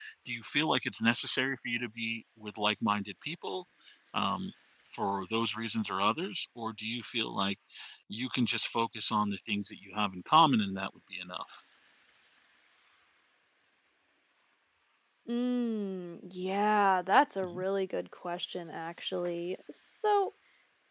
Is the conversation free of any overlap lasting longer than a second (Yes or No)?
Yes